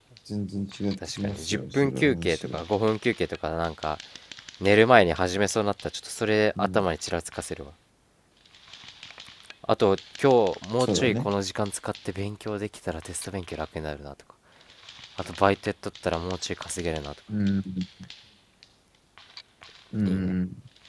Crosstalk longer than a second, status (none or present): present